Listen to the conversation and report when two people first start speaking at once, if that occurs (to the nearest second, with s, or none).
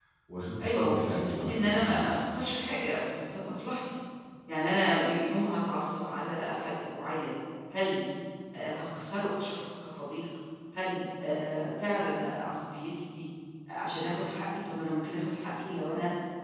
1 s